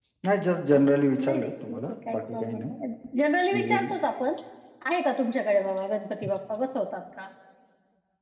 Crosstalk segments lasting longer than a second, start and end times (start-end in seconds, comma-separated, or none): 1.2-2.5